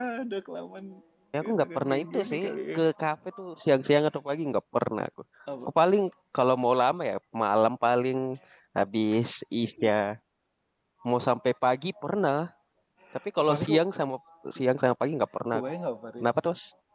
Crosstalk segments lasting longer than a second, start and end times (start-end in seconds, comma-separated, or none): 1.4-2.8